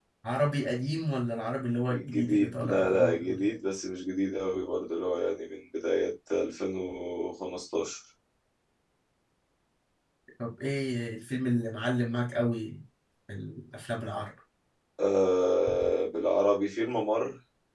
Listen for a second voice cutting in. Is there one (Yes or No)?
Yes